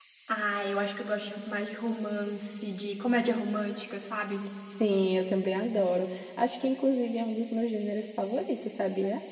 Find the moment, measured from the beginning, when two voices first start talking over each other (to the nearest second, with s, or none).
none